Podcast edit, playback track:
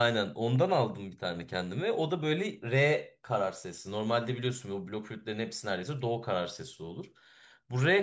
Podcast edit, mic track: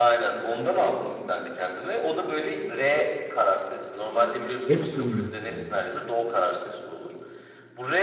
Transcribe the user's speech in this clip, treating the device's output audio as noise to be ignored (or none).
Hepsi Reels yani.